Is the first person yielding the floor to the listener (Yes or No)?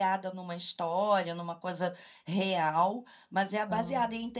No